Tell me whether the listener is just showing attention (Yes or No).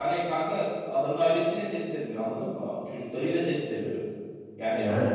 Yes